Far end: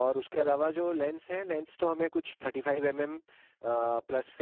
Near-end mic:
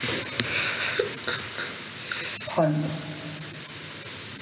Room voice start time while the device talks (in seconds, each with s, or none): 2.5 s